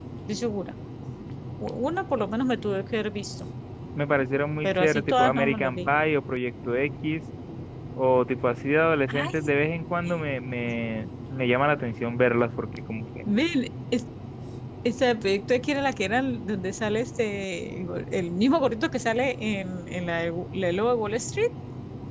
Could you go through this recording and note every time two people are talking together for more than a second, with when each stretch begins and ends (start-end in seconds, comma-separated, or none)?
4.6-5.9